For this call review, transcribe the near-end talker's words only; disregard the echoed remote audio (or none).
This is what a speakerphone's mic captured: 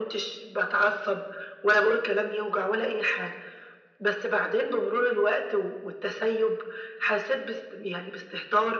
none